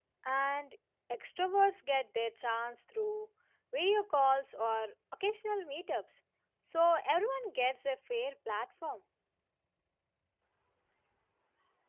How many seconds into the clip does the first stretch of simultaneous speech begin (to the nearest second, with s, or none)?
none